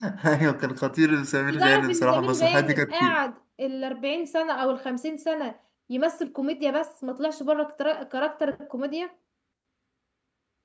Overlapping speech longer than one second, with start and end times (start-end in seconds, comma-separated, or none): 1.5-3.2